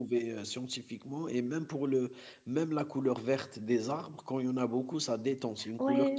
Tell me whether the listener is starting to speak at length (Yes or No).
Yes